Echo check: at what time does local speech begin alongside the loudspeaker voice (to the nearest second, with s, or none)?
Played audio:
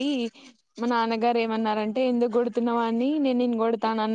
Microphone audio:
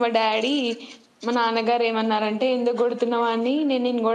none